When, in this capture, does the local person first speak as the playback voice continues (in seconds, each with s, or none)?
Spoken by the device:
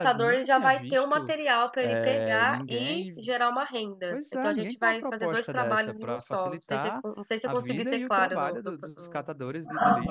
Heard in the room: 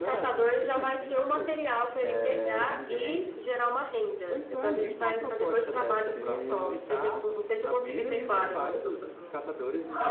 5.7 s